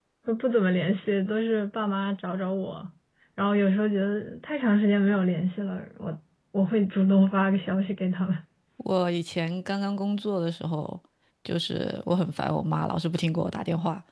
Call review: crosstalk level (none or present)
none